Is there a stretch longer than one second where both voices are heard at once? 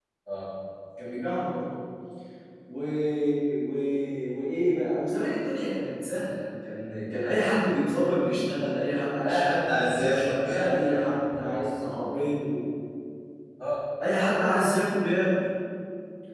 Yes, from 9.2 s

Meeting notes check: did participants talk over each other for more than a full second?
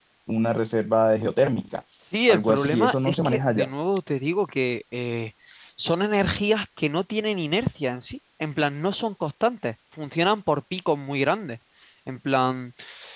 Yes, from 2.3 s

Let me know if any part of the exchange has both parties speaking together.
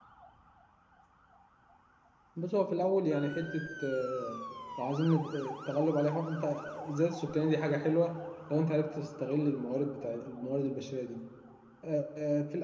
No

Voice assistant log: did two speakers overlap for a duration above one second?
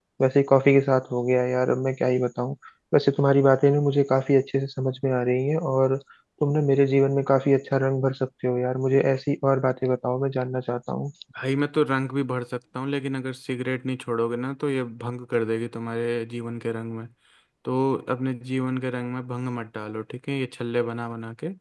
No

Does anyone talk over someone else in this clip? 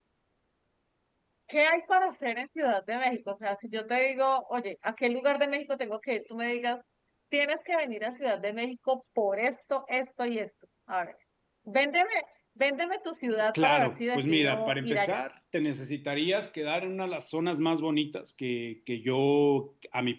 Yes, from 13.5 s

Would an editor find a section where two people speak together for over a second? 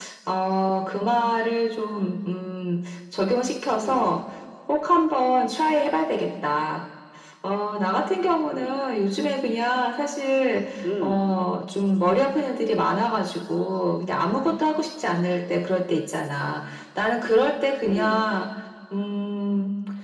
No

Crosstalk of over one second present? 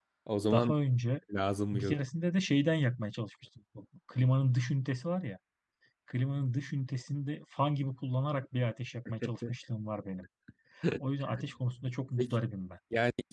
No

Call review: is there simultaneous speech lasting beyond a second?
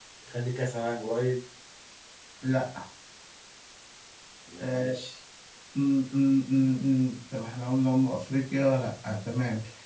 No

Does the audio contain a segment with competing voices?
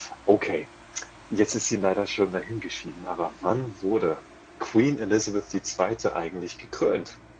No

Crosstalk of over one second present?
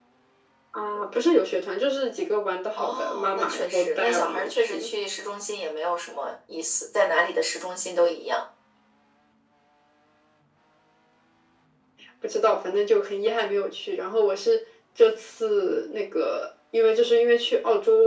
Yes, from 2.8 s

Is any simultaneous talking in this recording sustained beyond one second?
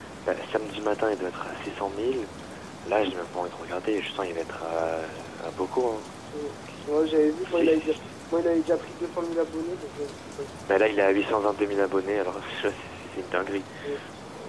No

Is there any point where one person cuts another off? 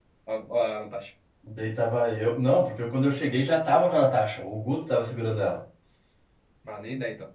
No

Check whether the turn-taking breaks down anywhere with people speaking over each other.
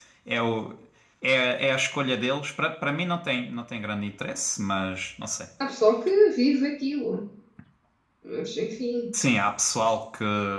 No

